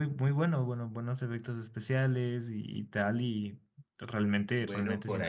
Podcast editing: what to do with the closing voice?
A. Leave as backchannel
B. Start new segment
B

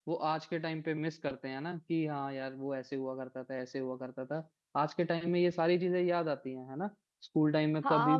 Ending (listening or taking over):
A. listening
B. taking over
B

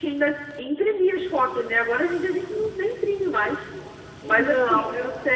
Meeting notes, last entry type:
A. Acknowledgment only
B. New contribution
A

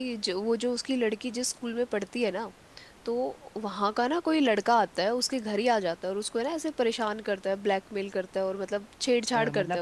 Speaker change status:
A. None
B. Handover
B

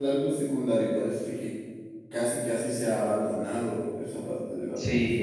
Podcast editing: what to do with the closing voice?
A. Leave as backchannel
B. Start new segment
B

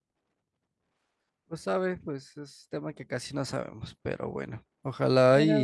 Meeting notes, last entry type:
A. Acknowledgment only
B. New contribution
A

